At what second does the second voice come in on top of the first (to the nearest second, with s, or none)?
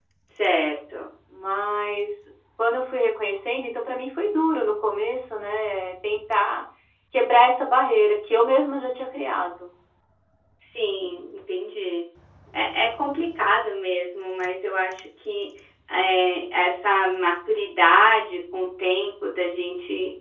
none